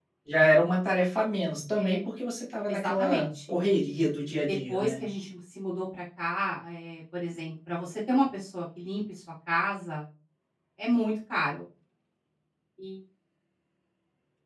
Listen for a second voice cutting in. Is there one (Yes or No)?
Yes